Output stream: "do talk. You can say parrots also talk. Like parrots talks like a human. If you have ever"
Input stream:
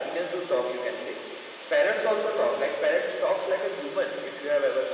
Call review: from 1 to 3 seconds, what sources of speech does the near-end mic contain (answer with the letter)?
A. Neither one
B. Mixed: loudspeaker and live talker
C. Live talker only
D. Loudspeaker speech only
D